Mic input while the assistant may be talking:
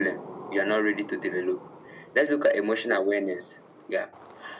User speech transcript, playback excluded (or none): none